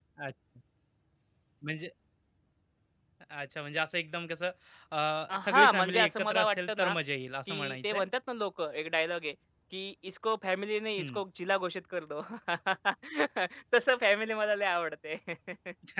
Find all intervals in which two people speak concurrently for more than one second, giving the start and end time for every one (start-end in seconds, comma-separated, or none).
5.4-6.9